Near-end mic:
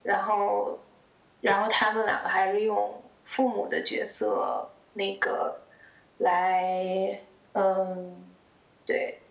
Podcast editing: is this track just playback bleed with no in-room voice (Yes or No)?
Yes